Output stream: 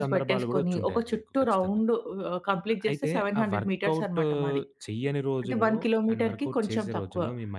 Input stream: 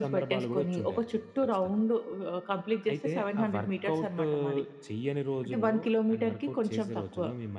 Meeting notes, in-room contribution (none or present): none